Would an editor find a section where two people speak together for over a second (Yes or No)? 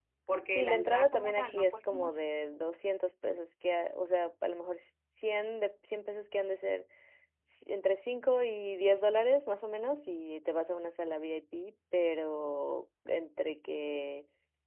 Yes